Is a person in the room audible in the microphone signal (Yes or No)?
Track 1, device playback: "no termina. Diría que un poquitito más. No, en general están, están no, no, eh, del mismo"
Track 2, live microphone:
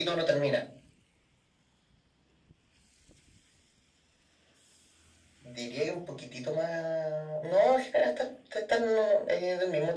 No